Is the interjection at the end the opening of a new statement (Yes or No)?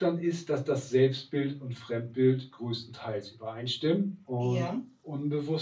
No